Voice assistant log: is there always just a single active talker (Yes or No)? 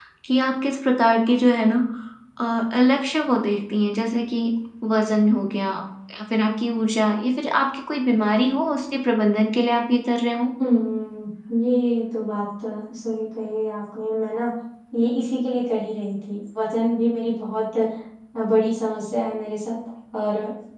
Yes